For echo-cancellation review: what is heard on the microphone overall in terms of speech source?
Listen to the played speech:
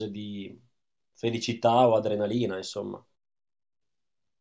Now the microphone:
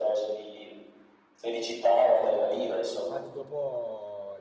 both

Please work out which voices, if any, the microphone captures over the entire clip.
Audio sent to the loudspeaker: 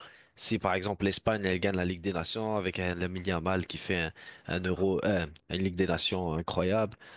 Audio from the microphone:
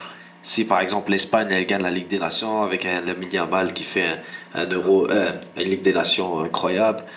echo only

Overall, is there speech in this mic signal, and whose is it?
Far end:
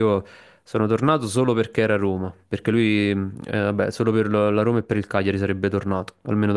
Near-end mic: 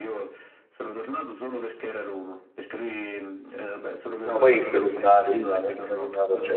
both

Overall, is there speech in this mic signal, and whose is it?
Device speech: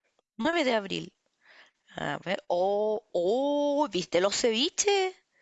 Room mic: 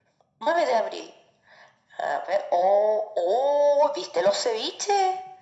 echo only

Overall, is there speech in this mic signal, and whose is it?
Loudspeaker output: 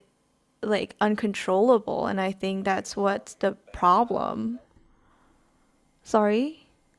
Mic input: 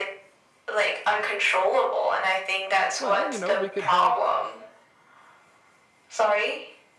both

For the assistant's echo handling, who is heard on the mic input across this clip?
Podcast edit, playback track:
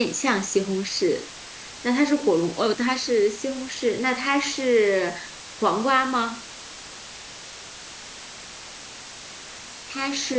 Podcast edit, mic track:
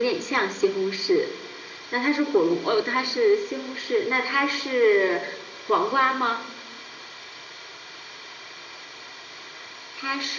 echo only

